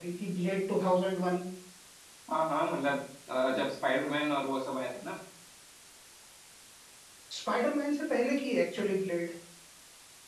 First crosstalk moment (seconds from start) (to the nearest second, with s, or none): none